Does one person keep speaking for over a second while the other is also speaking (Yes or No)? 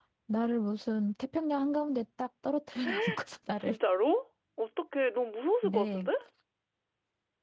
No